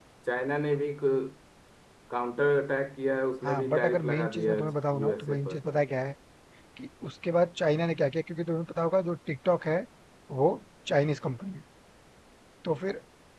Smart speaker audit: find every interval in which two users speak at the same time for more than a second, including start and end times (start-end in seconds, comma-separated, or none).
3.4-5.6